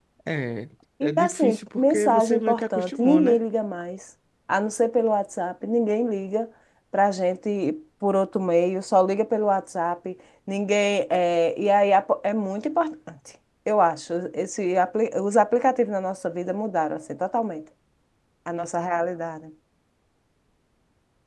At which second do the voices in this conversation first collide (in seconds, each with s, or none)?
1.0 s